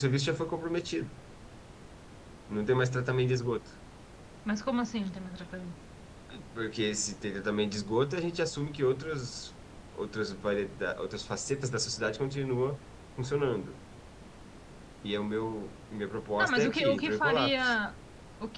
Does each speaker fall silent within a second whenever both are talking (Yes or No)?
No